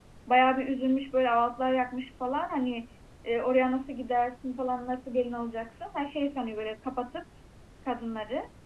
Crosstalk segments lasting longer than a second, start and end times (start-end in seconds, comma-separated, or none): none